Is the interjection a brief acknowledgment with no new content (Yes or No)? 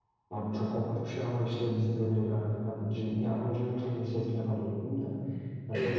No